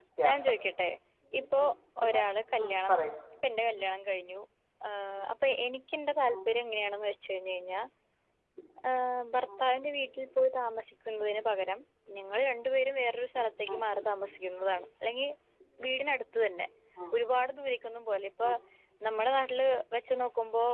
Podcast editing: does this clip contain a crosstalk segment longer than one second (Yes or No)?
No